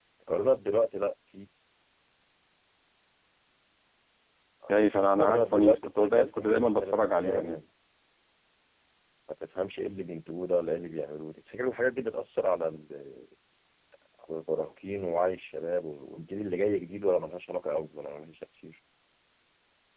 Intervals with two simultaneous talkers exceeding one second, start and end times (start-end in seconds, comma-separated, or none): 5.2-7.6